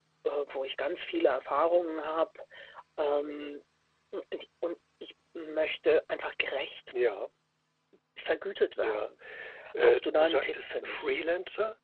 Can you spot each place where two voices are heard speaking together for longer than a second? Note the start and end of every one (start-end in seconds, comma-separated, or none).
9.8-11.2